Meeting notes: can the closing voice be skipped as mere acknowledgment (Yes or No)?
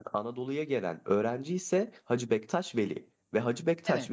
Yes